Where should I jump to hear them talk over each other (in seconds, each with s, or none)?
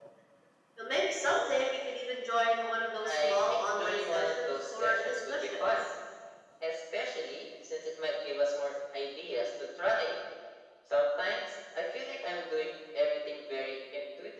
3.0 s